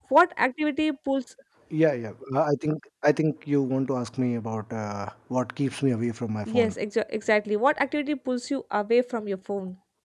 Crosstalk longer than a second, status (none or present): none